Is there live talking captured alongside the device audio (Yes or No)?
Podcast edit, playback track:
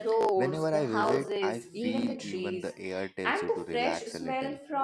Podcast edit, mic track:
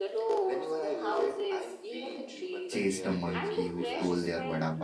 Yes